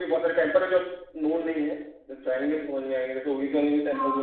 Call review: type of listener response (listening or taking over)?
taking over